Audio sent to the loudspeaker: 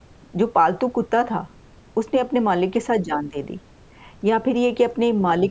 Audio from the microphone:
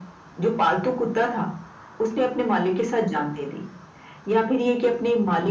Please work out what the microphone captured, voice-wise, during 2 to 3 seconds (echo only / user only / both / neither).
echo only